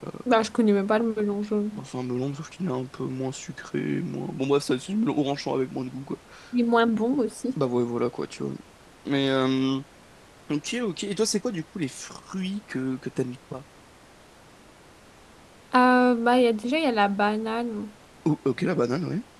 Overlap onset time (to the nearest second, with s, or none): none